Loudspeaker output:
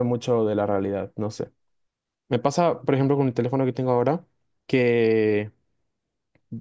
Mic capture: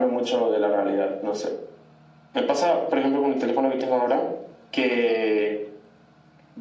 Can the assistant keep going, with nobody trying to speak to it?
Yes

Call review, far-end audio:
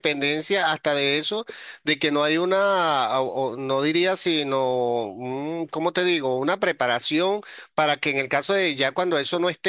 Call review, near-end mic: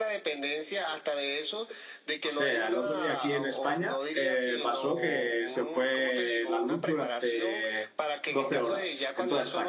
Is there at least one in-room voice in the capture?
Yes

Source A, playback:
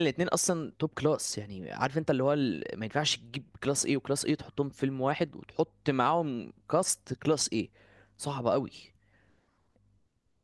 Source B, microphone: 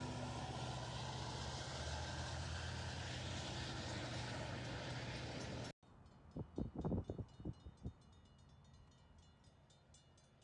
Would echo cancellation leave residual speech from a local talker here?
No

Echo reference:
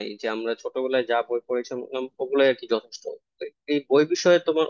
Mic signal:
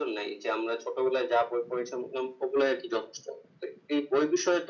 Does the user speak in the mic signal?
No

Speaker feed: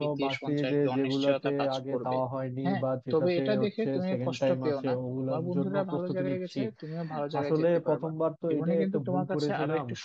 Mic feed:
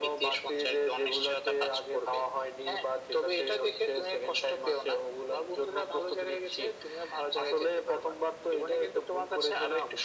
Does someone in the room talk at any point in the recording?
No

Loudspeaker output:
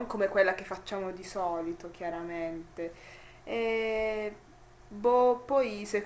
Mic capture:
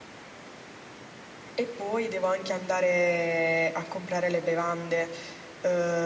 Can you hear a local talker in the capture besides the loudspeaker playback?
Yes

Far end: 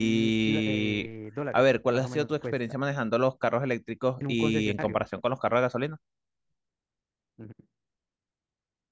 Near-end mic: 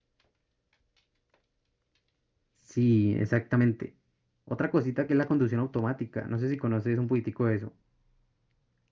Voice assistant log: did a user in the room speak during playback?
Yes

